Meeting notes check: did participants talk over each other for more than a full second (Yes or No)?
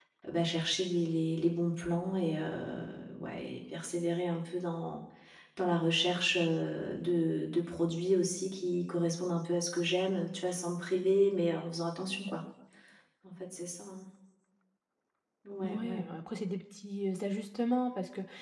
No